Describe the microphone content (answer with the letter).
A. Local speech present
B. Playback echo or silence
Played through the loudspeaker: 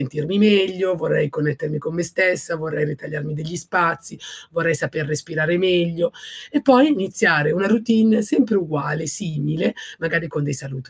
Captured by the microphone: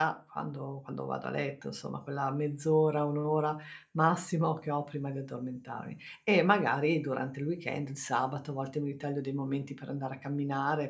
A